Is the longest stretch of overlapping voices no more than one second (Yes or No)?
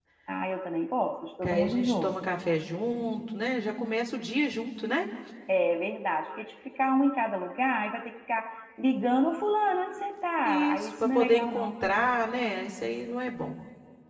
No